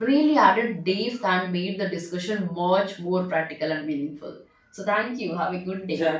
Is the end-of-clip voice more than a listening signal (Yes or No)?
Yes